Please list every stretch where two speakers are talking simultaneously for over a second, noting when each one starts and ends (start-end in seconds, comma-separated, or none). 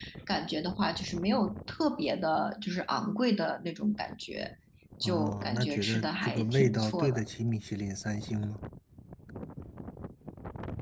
5.0-7.2